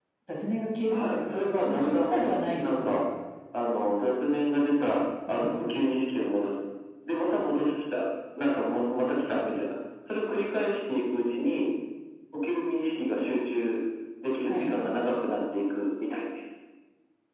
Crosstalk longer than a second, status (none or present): present